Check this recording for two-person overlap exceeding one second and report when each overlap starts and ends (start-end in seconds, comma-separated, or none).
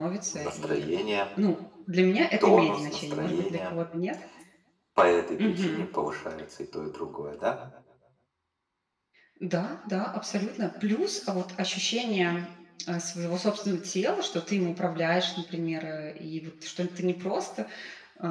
2.4-3.7